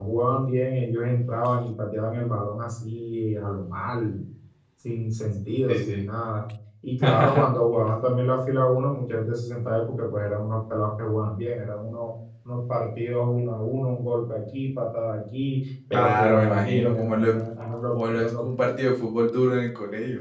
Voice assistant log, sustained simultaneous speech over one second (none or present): present